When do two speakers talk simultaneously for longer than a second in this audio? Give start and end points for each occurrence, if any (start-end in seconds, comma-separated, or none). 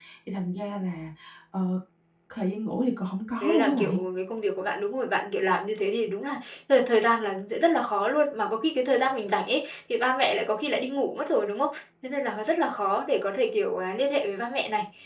none